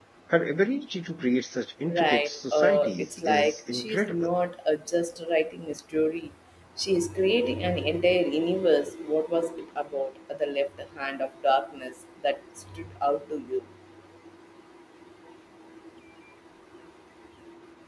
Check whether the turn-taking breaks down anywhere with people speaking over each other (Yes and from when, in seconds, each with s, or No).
Yes, from 1.9 s